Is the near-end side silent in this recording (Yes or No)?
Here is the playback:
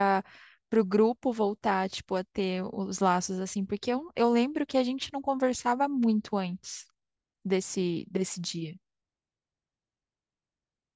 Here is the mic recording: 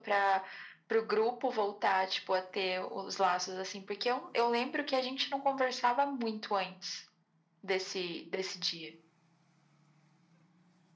Yes